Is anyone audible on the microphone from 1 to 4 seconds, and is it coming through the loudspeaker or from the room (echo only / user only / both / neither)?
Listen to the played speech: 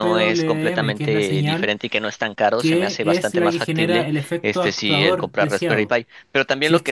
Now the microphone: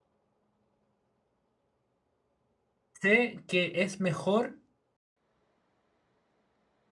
user only